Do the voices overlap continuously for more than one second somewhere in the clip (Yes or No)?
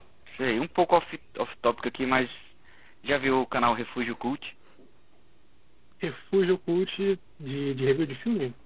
No